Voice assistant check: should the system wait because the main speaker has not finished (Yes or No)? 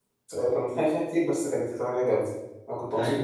No